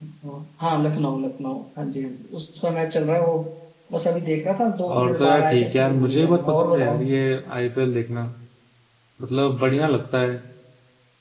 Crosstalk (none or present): present